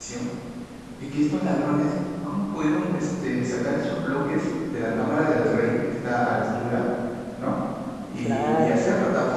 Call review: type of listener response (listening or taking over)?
listening